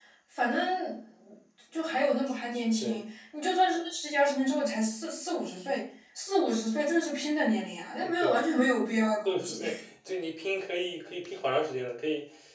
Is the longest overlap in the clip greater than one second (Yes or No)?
No